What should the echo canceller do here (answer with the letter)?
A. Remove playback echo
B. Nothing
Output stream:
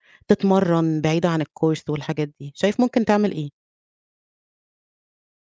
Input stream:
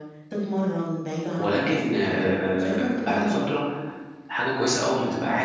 A